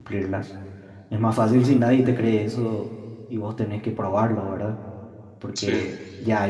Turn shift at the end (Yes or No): No